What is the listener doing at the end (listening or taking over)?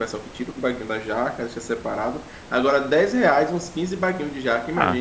taking over